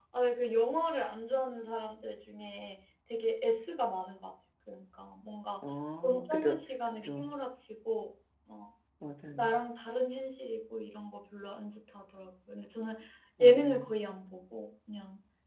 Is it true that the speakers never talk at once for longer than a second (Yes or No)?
Yes